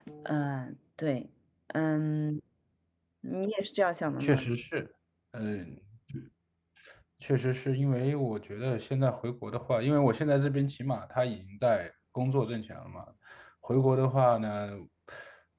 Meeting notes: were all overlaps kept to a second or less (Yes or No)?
Yes